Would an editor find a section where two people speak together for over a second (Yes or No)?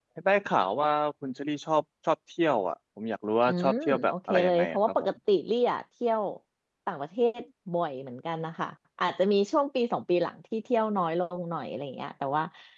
Yes